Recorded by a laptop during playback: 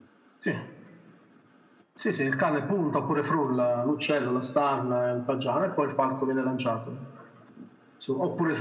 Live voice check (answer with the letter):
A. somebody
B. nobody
B